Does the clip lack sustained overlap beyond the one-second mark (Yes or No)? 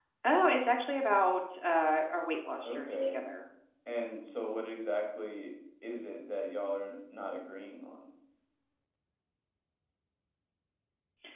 Yes